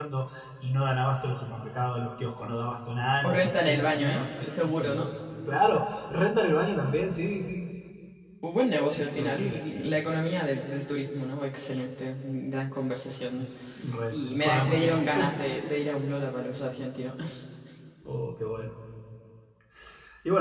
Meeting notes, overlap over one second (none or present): present